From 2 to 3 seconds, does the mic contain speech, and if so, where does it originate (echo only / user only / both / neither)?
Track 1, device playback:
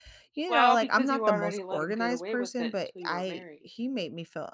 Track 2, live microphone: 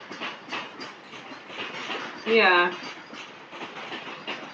user only